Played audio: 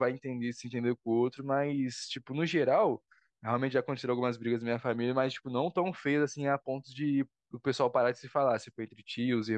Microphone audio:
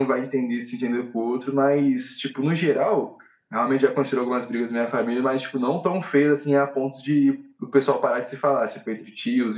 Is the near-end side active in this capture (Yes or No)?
No